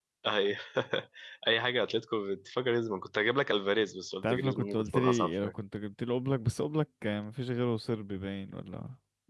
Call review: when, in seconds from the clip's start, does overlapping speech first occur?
4.2 s

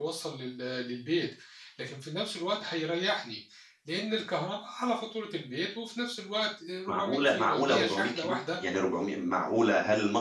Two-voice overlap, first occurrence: 6.9 s

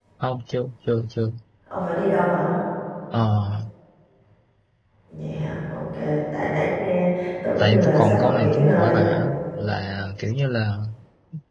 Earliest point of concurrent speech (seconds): 7.6 s

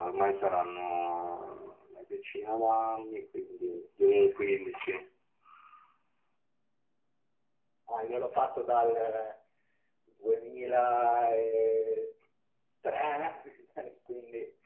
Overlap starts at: none

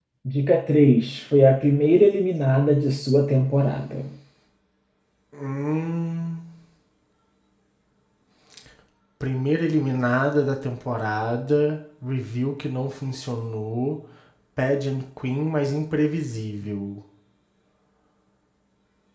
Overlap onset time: none

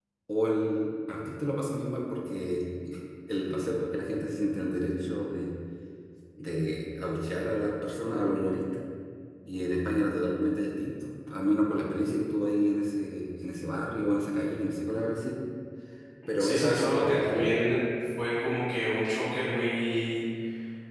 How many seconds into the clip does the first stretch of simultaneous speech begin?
16.4 s

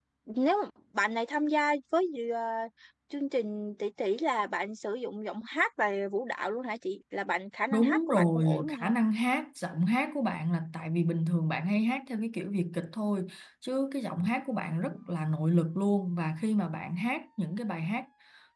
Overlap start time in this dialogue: 7.7 s

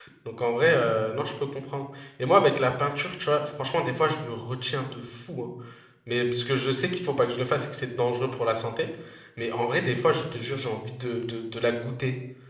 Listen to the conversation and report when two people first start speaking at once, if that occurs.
none

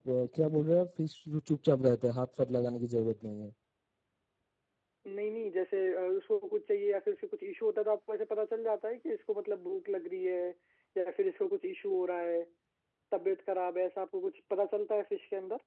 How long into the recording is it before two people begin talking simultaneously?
none

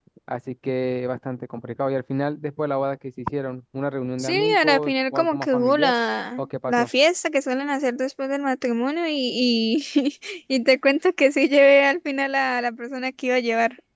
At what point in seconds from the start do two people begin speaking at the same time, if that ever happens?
4.2 s

